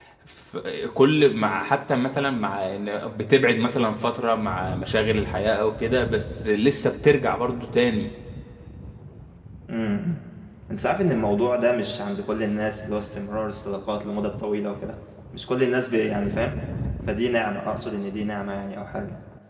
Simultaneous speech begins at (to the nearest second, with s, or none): none